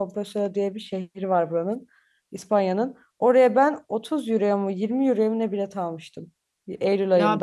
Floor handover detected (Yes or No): Yes